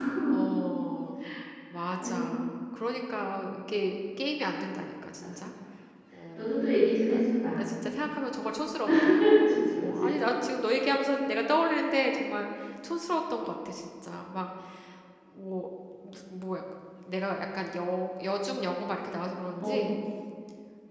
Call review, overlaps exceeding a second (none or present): none